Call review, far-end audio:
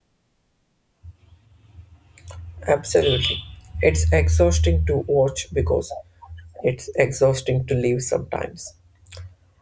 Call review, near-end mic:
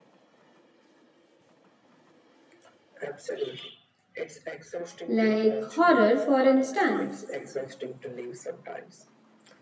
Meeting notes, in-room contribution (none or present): present